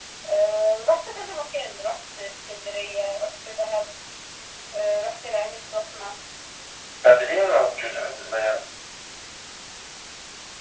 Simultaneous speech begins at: none

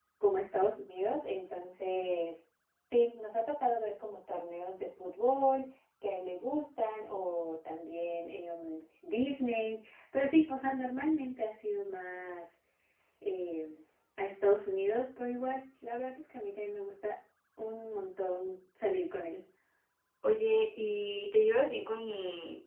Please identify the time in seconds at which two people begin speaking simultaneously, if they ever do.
none

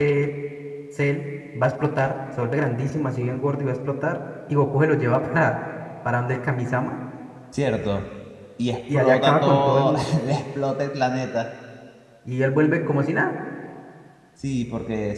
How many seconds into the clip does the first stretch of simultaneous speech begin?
8.9 s

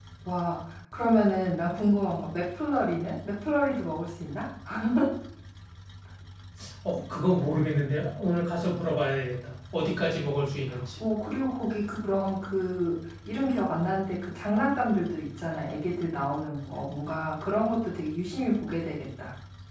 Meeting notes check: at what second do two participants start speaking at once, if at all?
none

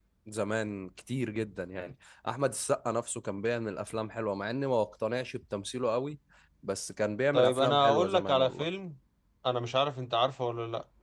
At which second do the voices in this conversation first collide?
7.3 s

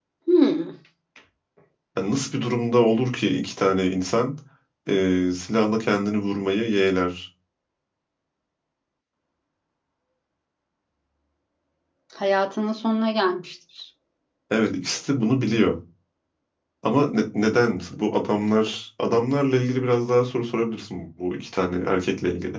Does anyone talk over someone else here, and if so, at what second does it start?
none

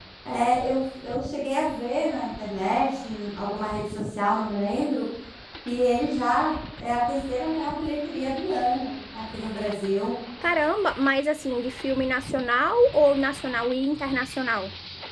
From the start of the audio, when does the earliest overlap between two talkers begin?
none

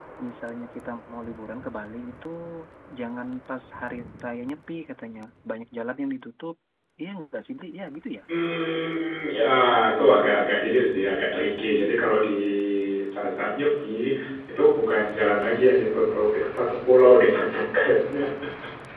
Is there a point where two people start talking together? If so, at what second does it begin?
none

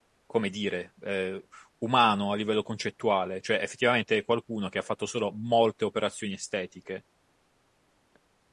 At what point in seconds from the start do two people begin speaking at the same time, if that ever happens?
none

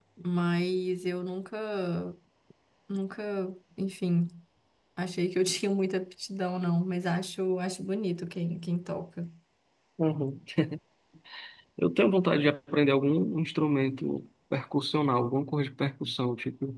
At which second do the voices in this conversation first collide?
none

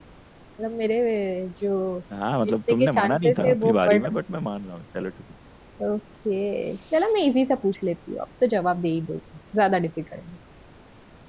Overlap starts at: 2.4 s

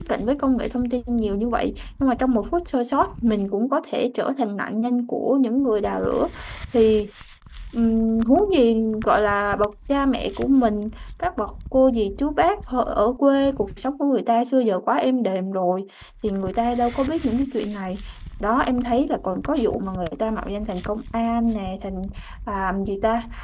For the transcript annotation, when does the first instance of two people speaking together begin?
none

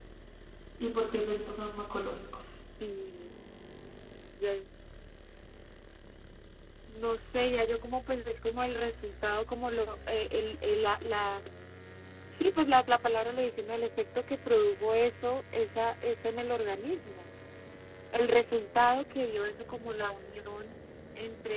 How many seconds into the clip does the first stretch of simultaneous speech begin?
none

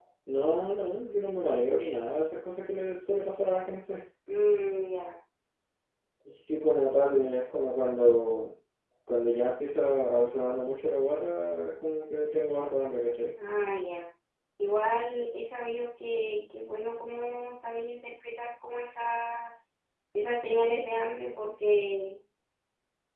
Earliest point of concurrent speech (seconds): none

